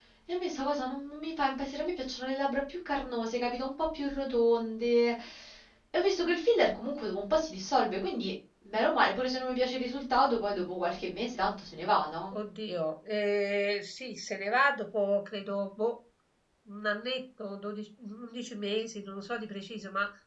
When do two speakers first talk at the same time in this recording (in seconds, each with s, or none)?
none